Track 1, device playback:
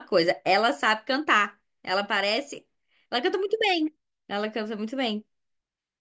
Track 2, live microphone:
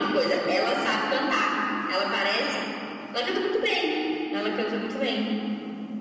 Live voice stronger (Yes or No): No